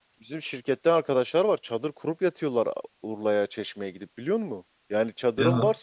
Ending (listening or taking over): listening